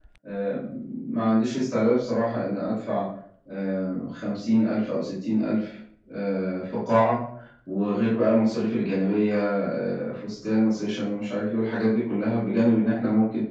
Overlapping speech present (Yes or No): No